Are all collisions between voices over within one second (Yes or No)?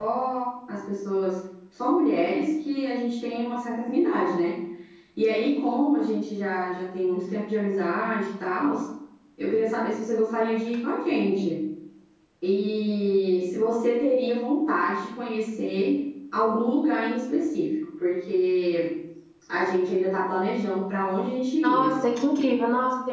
Yes